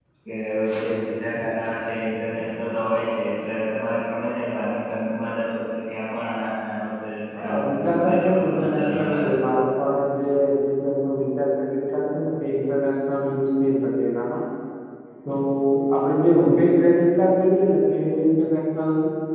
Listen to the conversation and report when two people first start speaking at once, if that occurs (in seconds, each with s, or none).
7.4 s